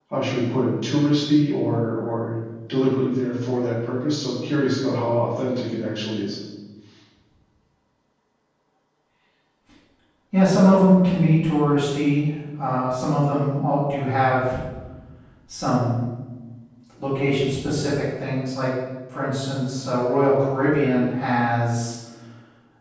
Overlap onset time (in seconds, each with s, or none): none